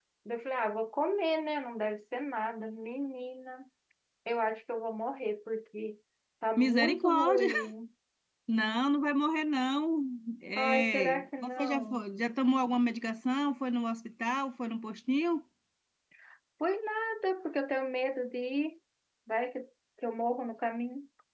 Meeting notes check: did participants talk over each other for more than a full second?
Yes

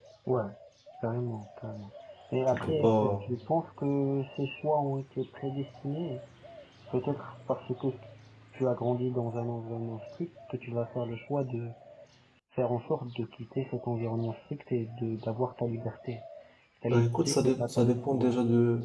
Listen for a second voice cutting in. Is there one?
Yes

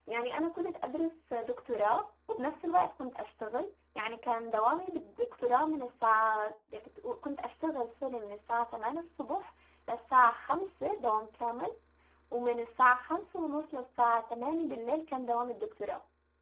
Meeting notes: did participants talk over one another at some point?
No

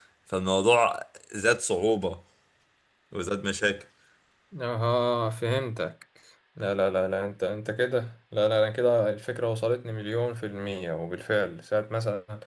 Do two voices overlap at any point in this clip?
No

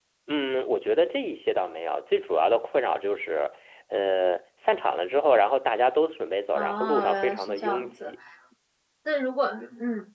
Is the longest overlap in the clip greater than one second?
Yes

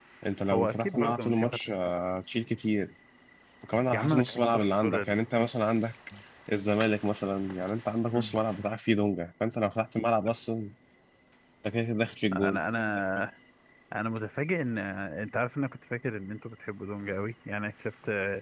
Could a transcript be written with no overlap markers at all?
No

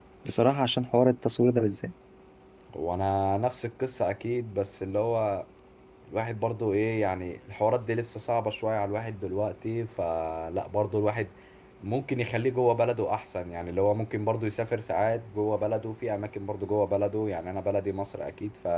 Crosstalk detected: No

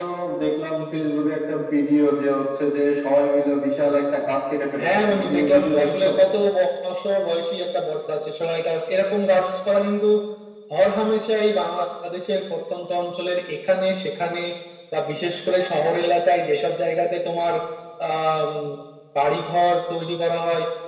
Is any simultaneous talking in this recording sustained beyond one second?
Yes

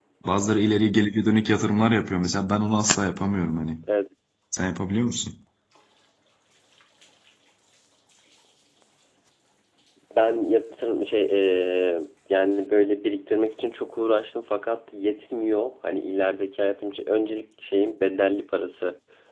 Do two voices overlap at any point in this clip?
No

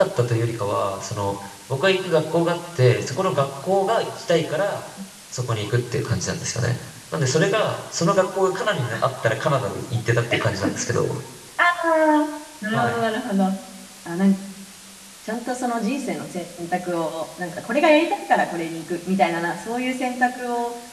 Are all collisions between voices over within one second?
Yes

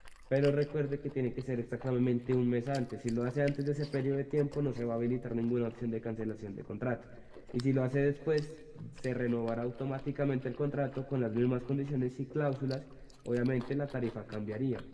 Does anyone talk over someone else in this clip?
No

